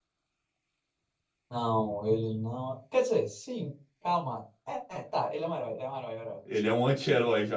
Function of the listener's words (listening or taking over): taking over